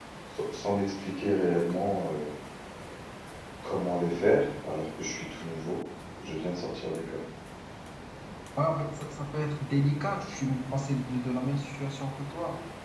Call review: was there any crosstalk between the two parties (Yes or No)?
No